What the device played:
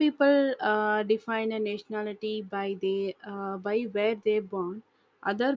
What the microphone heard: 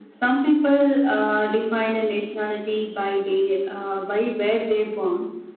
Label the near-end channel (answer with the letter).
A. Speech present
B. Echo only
B